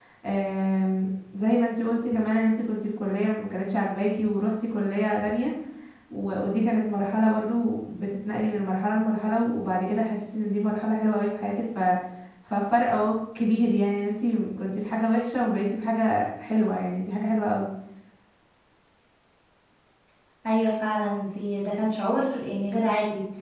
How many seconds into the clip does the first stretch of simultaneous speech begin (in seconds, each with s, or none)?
none